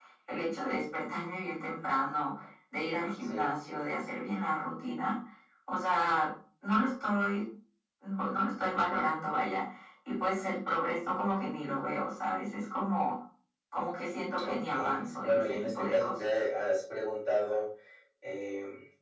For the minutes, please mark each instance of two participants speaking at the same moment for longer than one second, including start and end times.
14.4-16.3

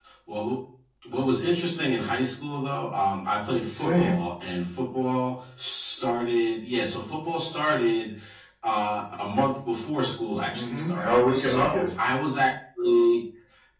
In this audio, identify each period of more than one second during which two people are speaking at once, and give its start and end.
10.5-12.0

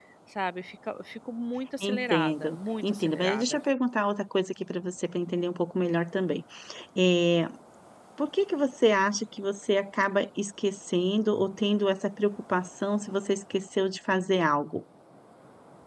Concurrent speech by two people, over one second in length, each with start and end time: 1.8-3.6

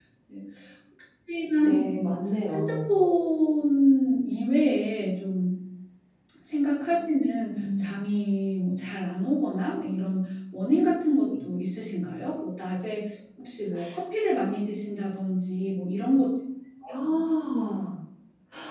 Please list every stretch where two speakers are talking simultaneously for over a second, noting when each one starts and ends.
none

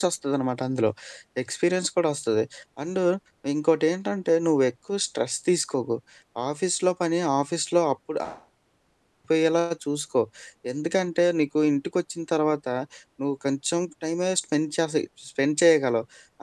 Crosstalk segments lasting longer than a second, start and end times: none

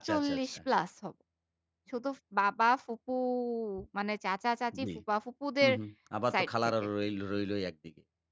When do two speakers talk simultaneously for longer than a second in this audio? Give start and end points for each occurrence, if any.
none

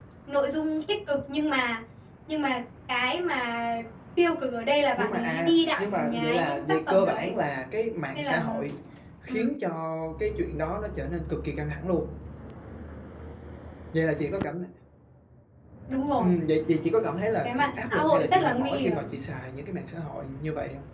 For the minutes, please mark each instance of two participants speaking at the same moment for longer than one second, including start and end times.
5.0-7.3, 17.4-19.1

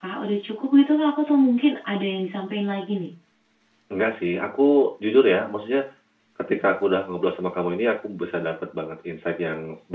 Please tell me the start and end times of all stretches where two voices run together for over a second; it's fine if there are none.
none

